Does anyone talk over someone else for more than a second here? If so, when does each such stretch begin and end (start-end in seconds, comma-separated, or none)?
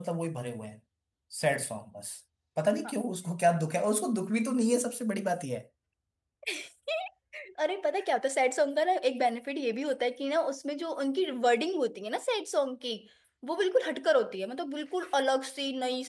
none